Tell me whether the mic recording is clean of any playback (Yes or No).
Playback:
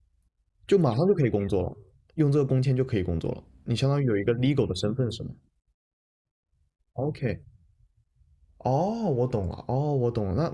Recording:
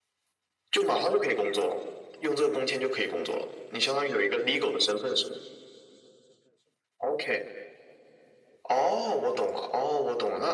No